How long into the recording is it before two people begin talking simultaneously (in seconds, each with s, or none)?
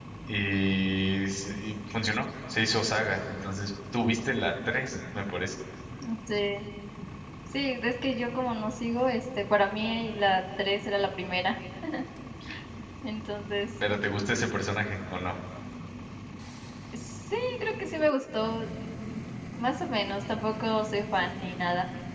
none